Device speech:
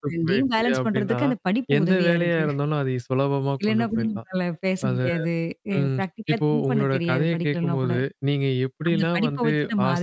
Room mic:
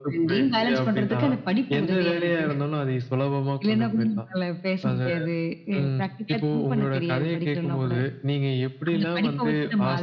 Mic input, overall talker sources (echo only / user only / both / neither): echo only